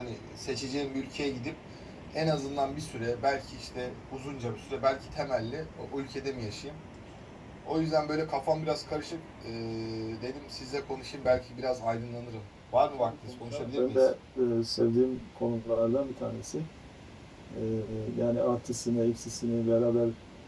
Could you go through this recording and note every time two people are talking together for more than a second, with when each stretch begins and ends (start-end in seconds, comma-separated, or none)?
12.8-14.1